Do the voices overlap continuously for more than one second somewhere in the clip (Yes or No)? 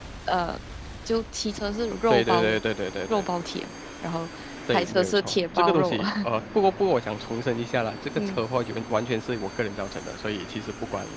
Yes